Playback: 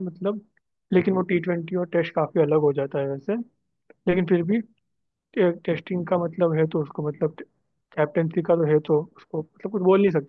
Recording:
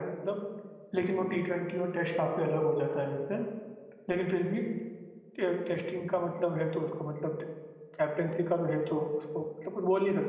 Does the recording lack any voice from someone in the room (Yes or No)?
Yes